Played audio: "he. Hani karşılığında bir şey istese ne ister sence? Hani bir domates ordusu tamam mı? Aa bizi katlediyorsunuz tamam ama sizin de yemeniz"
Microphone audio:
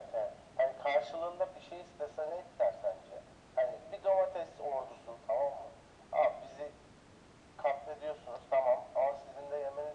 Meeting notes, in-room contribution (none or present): none